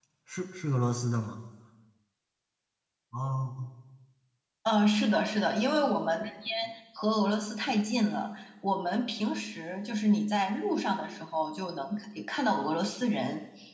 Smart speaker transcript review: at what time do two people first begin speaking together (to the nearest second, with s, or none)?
none